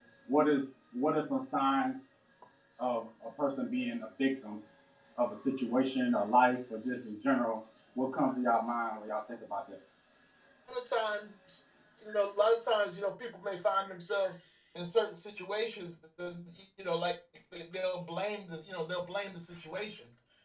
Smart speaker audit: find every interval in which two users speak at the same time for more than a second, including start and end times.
none

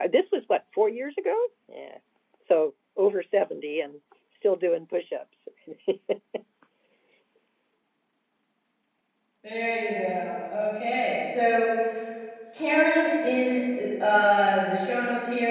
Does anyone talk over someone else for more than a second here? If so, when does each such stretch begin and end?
none

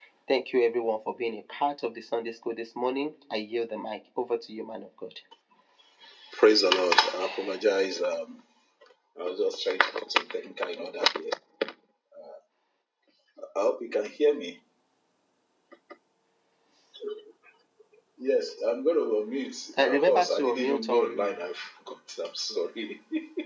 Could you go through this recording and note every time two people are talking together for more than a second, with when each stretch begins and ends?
19.8-21.3

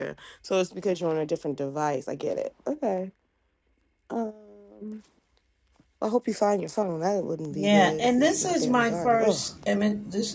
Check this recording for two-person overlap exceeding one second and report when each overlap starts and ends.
7.5-9.4

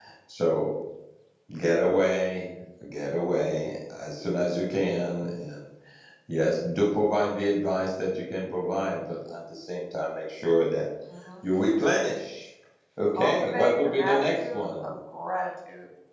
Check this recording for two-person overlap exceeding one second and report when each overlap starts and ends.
13.1-15.0

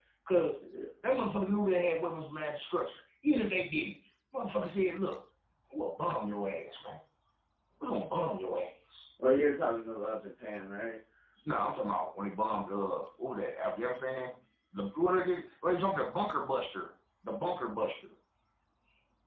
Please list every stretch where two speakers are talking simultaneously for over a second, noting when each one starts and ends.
none

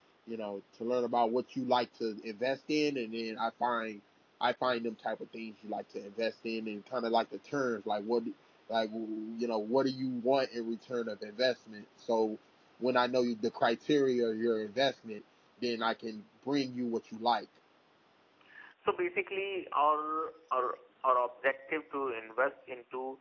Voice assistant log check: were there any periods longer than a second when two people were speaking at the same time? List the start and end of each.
none

